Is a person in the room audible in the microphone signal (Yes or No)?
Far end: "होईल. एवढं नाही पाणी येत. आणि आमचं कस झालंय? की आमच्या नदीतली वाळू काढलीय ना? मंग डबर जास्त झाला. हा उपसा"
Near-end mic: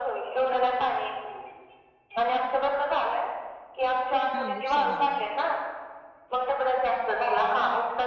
Yes